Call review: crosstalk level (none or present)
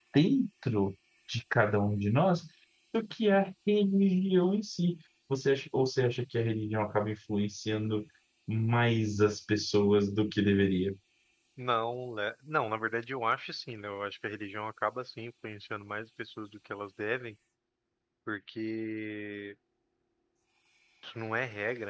none